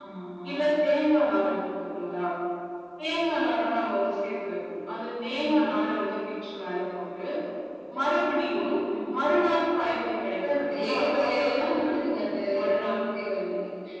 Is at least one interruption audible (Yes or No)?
Yes